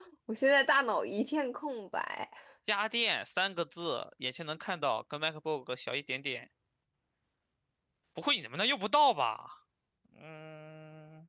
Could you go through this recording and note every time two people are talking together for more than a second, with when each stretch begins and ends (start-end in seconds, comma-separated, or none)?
none